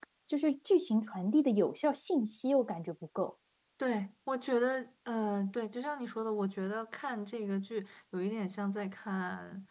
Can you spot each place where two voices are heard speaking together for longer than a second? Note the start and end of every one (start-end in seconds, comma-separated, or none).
none